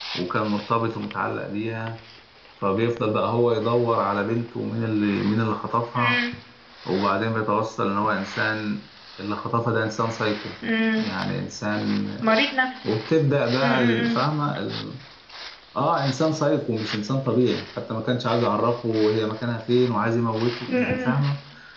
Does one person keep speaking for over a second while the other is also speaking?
No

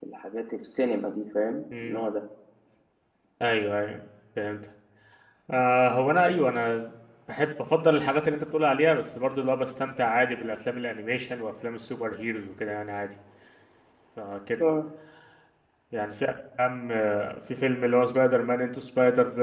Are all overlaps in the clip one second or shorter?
Yes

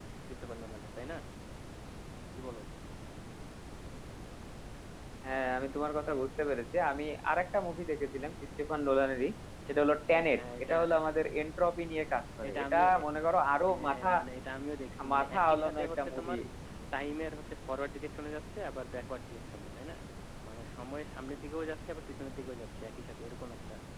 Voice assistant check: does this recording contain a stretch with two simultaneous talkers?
Yes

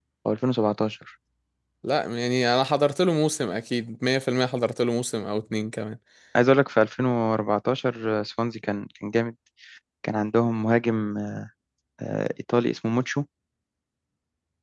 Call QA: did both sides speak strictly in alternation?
Yes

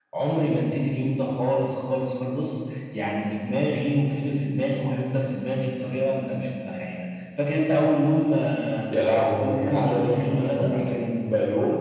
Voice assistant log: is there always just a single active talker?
No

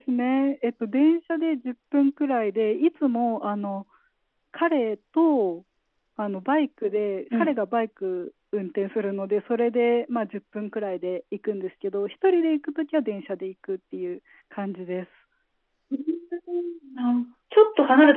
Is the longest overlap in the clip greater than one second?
No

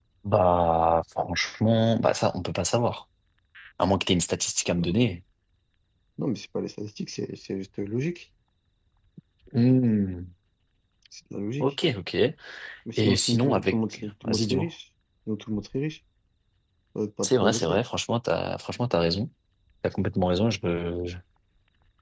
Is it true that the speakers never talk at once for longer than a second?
No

